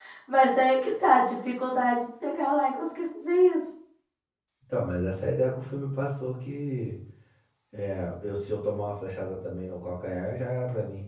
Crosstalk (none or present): none